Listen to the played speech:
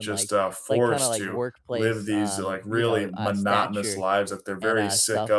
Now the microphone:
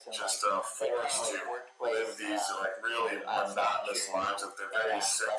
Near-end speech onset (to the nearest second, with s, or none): none